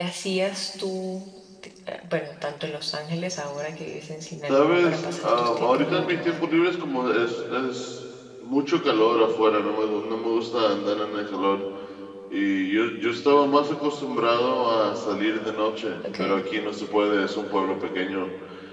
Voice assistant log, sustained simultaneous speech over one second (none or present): present